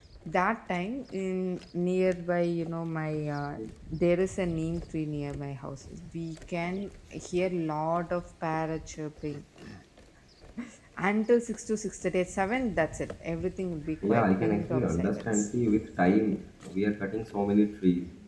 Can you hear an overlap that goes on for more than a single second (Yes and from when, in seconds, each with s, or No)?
Yes, from 14.0 s